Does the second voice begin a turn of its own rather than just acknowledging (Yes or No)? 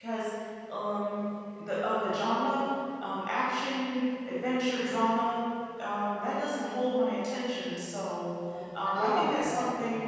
No